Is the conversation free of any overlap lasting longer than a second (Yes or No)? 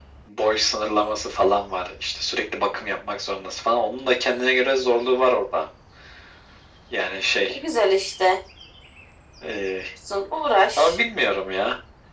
Yes